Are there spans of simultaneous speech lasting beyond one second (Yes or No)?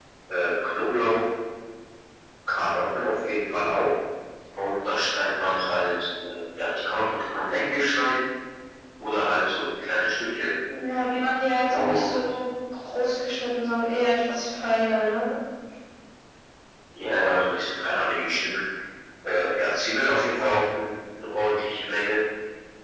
No